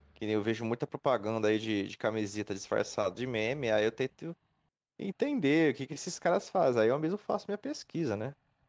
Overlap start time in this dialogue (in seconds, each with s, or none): none